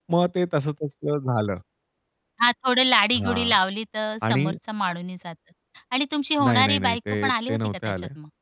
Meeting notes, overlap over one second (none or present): present